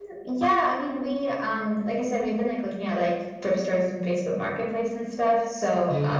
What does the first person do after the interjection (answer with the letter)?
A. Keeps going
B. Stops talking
A